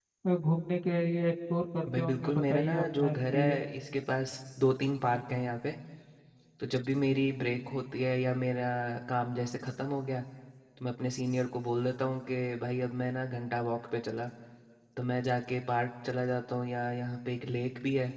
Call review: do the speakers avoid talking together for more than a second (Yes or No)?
No